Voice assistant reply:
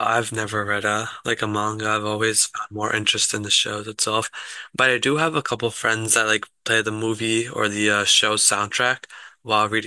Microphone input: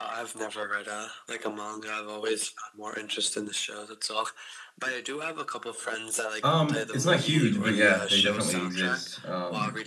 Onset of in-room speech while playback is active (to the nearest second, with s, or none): 6 s